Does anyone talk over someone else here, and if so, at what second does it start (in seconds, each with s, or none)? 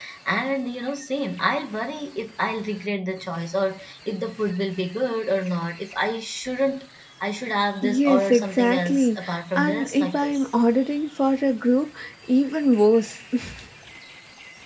7.8 s